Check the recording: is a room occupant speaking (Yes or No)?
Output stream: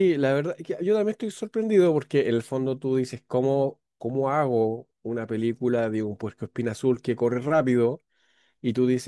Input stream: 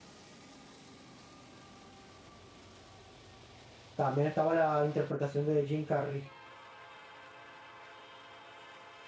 Yes